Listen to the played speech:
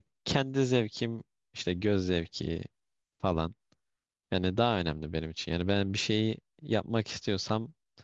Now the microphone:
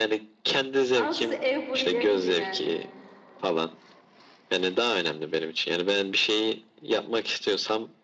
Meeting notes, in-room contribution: present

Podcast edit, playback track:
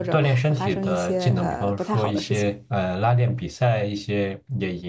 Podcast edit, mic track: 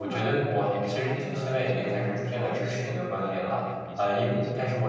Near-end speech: present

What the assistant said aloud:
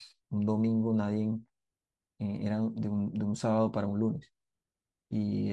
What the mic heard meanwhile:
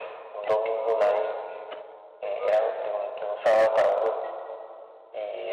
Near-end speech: present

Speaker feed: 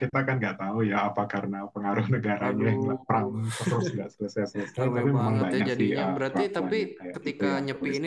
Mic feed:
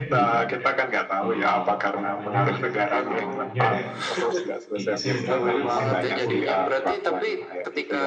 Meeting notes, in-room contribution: present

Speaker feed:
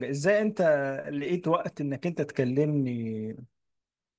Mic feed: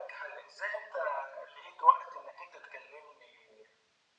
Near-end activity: none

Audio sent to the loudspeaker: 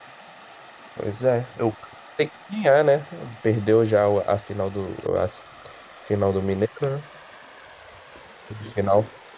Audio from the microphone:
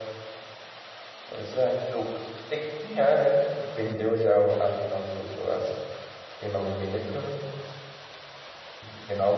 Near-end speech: none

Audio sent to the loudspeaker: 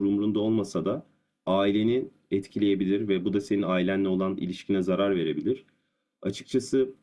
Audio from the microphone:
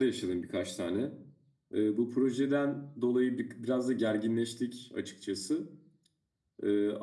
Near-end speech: present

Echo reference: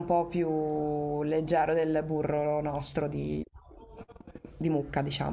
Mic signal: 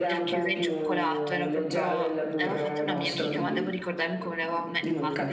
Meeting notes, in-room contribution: present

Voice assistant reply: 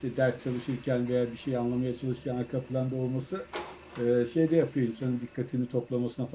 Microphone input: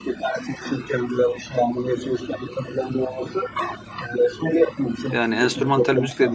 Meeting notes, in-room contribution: present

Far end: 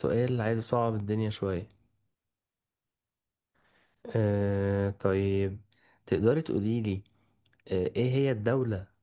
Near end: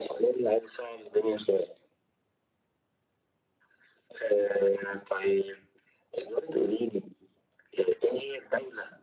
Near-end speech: none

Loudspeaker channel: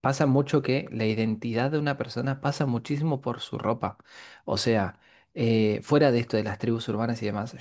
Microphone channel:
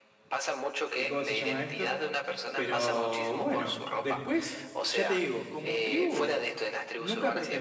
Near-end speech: present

